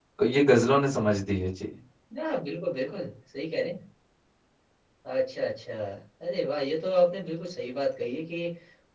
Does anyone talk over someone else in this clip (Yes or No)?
No